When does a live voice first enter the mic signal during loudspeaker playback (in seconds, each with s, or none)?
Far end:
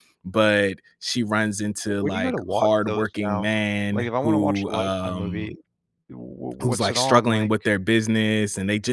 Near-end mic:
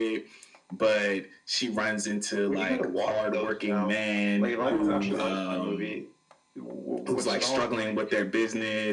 4.5 s